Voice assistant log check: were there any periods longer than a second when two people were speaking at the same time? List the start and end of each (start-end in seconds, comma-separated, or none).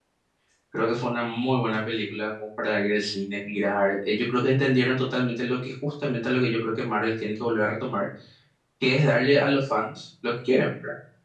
none